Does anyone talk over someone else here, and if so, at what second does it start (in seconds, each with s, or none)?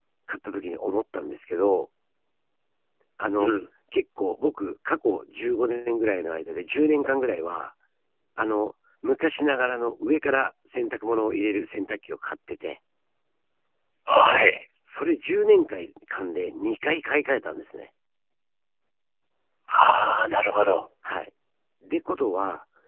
none